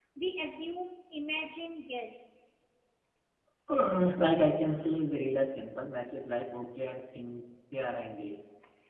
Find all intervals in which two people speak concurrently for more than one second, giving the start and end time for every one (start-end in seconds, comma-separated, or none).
none